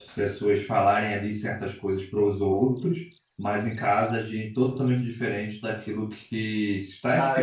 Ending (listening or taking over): taking over